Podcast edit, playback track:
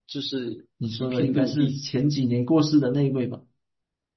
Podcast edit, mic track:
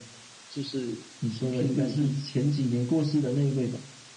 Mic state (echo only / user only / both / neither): echo only